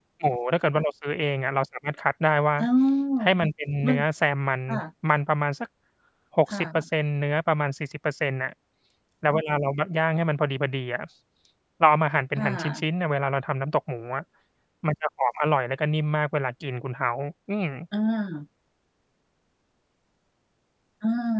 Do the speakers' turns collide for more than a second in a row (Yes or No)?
No